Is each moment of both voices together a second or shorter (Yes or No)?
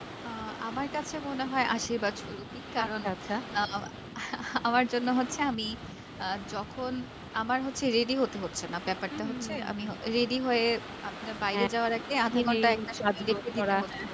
No